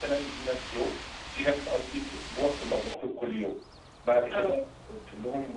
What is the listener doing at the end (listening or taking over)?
listening